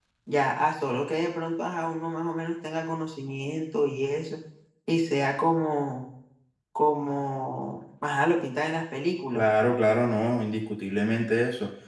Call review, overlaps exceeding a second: none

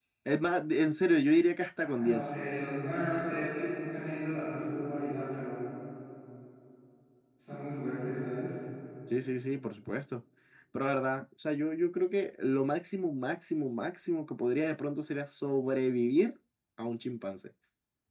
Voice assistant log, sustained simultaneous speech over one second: none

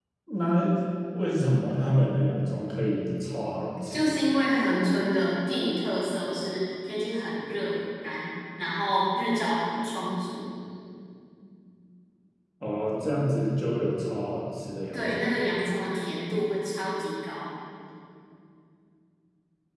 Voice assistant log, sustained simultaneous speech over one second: none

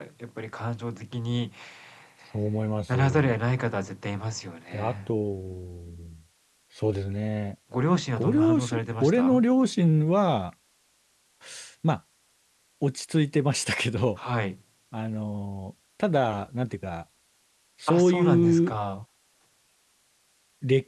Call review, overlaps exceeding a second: present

